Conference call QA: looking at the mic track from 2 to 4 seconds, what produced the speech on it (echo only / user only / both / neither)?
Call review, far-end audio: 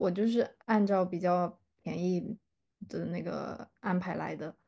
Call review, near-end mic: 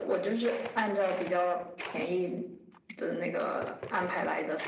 echo only